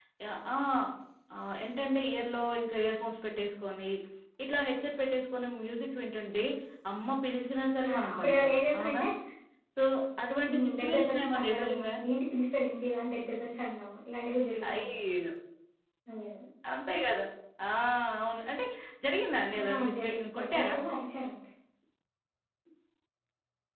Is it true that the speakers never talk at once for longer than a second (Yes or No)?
No